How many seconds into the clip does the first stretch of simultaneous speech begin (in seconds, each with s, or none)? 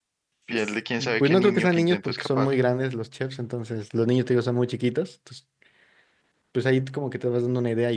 1.2 s